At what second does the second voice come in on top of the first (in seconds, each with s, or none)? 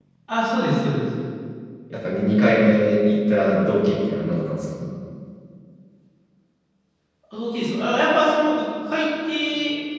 none